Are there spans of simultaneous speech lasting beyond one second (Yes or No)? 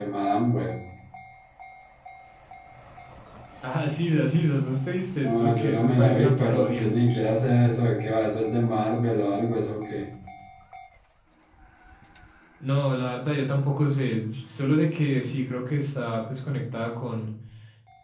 Yes